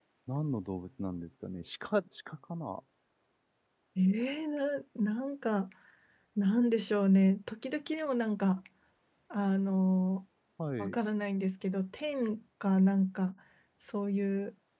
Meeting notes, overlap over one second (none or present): none